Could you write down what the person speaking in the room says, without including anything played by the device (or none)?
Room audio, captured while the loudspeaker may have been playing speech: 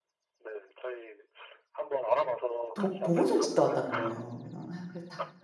도 보건소를 짓다 왔다는 거예요. 그래서 아 그래서 다